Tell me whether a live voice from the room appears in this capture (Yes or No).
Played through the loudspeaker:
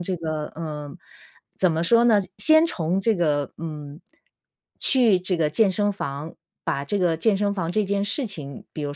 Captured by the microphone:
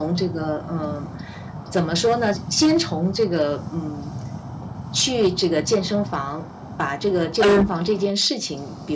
Yes